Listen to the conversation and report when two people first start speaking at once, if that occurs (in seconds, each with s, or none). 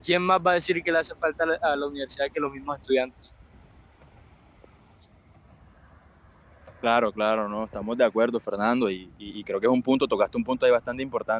none